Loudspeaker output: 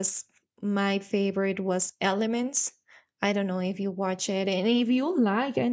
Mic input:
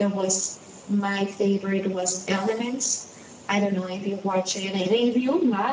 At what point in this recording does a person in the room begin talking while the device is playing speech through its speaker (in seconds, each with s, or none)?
none